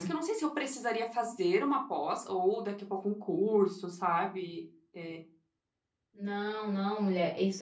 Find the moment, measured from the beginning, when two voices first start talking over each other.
none

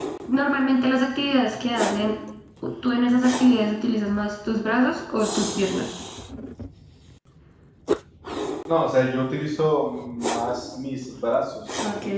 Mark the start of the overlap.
none

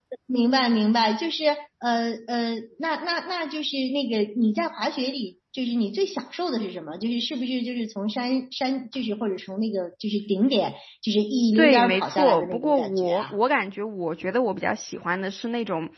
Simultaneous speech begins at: 11.6 s

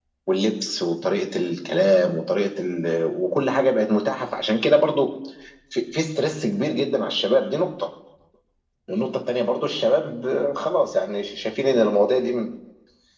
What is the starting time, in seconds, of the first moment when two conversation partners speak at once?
none

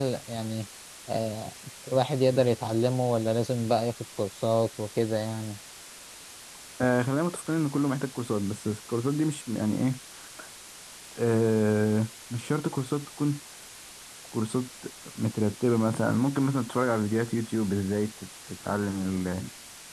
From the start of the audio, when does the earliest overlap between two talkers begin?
none

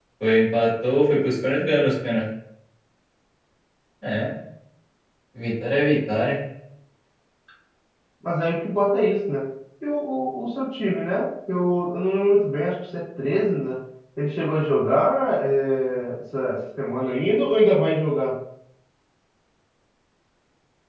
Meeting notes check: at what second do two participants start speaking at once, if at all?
none

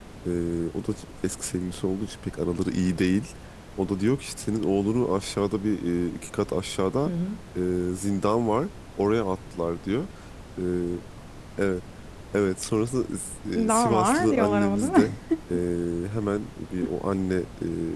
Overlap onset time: 13.7 s

